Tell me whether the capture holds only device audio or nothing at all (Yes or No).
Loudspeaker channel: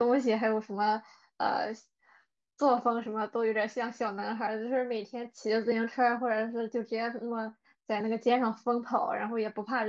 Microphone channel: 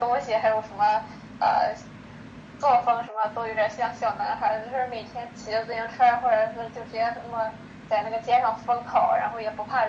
Yes